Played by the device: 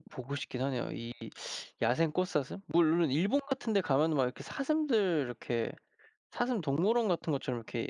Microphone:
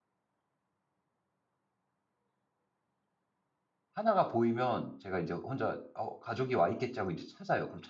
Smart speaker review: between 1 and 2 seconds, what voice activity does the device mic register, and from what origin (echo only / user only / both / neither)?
neither